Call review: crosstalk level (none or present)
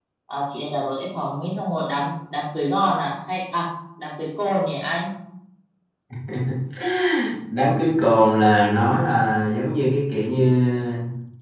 none